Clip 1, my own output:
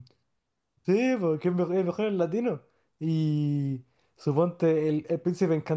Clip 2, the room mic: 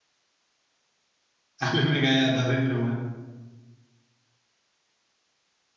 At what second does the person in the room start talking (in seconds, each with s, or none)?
1.6 s